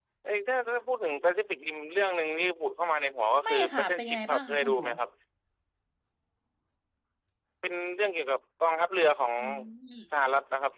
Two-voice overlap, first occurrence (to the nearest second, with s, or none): 3 s